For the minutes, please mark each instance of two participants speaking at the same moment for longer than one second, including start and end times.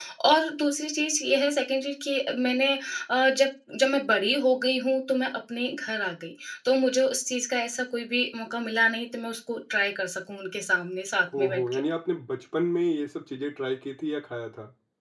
none

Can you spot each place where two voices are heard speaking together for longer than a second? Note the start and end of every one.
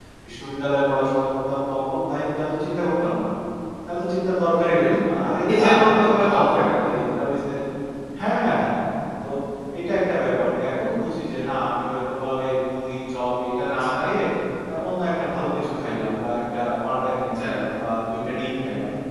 5.5-7.0

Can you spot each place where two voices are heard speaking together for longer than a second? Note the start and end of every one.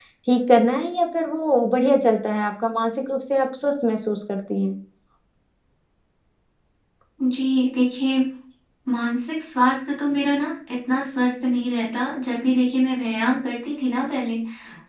none

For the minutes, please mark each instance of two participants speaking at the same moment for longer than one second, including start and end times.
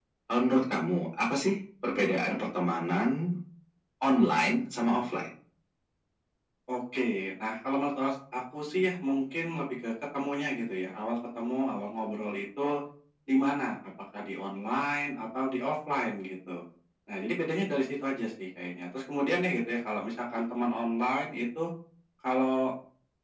none

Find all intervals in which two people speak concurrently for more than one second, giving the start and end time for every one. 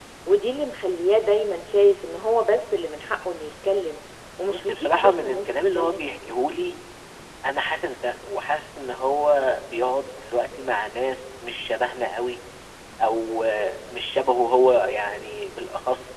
4.4-6.0

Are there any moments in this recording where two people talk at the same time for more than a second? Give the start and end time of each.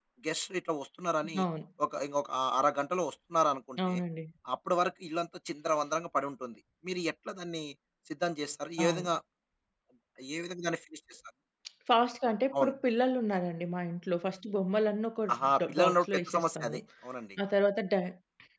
15.3-16.8

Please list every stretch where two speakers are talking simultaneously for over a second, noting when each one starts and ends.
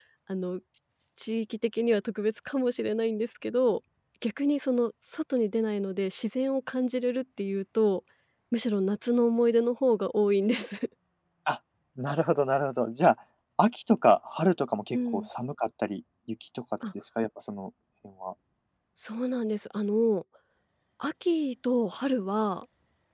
none

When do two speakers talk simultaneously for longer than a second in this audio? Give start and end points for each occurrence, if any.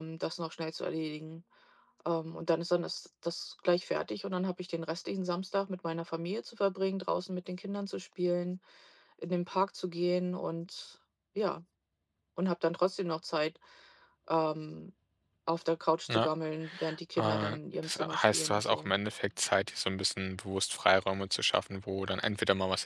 17.2-18.9

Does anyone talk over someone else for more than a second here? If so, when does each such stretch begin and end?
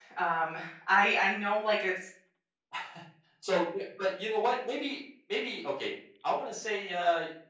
none

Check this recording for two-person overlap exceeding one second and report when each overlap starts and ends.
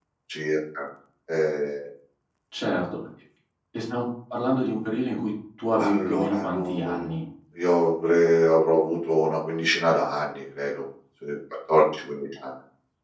5.8-7.0

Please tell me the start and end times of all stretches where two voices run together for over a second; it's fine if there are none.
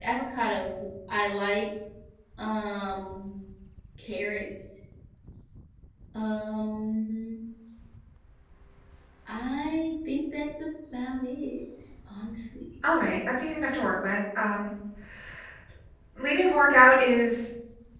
none

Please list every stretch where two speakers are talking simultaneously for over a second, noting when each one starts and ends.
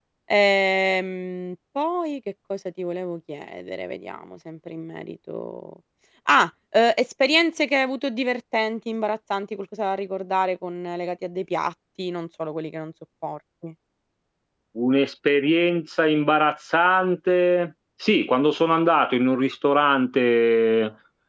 none

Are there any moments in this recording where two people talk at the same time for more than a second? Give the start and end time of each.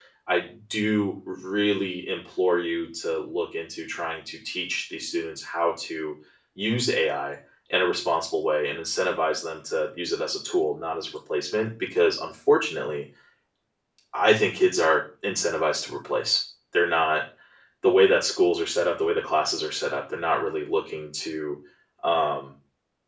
none

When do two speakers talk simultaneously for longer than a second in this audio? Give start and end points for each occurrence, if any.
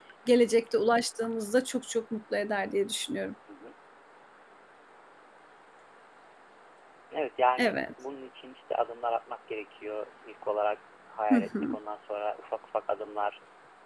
none

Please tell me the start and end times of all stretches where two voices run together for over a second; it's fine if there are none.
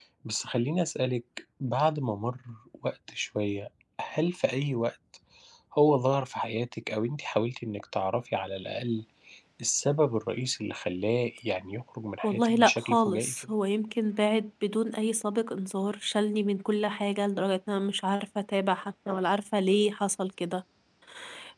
12.2-13.5

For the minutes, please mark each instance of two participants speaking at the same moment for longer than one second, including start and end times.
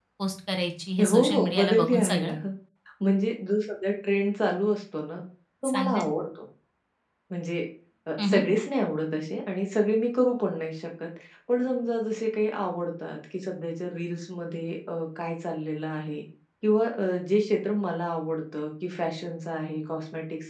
1.0-2.3

